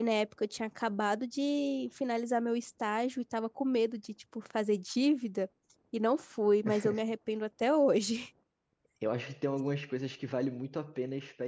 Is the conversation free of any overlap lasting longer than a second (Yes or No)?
Yes